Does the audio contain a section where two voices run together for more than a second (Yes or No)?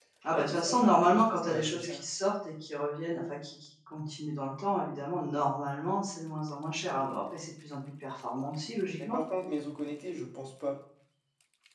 Yes